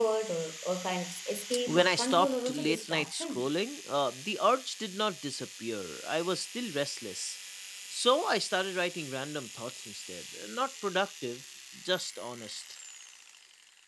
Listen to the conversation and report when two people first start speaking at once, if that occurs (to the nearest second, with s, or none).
2 s